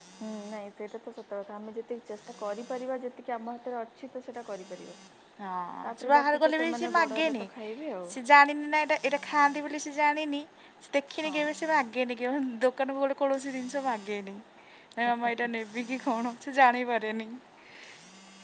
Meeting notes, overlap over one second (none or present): present